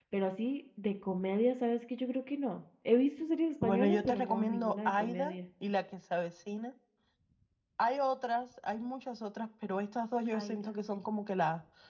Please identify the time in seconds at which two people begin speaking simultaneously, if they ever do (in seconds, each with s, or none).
3.6 s